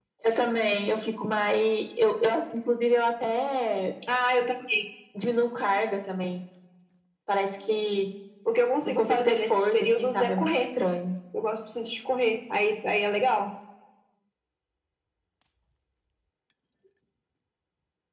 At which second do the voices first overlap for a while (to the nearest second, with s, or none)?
9 s